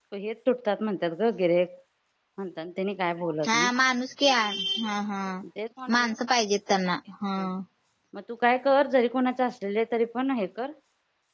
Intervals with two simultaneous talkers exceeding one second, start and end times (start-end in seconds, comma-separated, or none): none